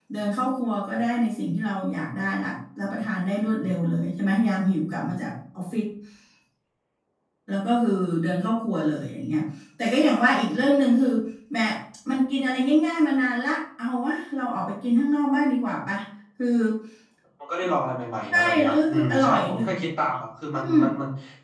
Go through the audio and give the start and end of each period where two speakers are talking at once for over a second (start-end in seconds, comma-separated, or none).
18.3-19.6